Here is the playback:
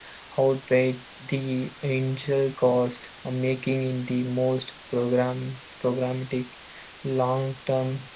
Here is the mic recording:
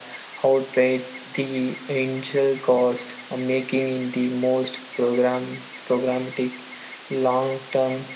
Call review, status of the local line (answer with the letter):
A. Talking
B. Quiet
B